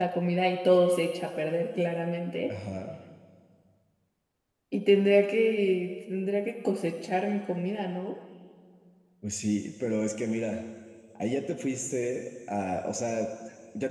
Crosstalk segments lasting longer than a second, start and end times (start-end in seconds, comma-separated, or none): none